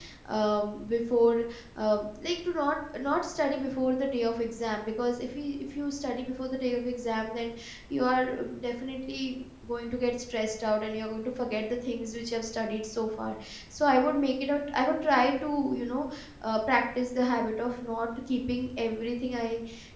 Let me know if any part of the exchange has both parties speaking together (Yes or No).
No